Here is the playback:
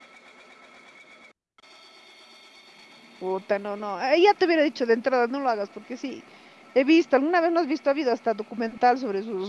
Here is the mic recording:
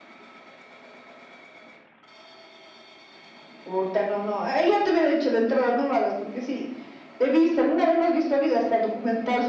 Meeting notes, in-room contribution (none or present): none